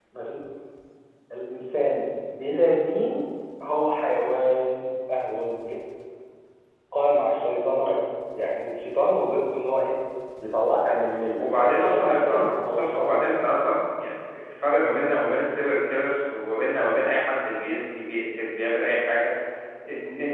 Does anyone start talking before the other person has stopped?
Yes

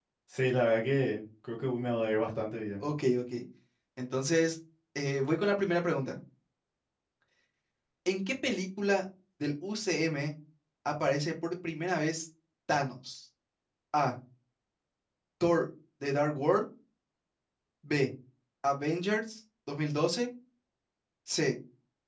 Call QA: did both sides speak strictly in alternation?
Yes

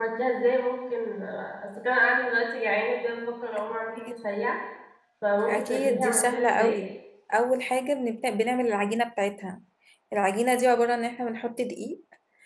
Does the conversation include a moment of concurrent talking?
Yes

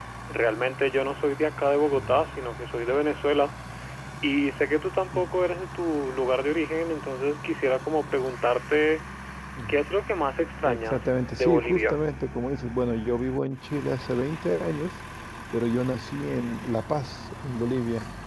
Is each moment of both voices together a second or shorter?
No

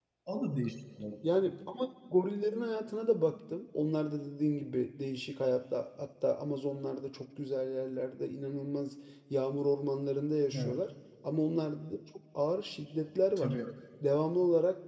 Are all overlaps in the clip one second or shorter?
Yes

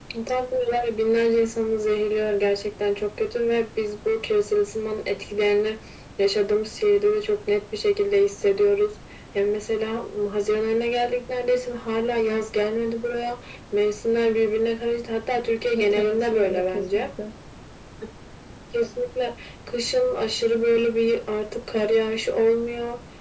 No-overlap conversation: No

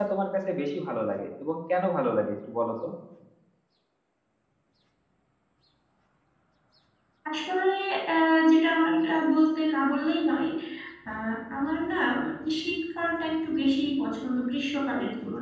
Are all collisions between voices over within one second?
Yes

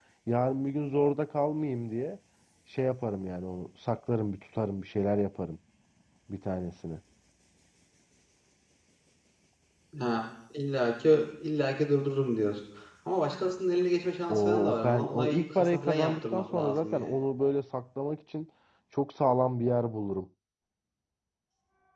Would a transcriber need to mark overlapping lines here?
Yes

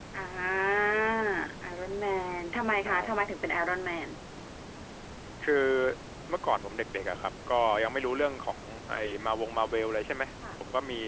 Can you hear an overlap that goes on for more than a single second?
No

